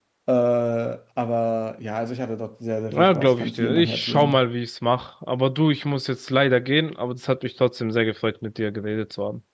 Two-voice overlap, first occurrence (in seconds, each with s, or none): 2.9 s